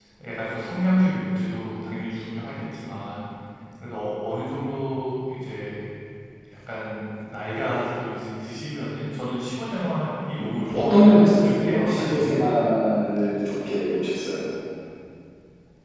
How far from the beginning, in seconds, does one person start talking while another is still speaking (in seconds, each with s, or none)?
10.4 s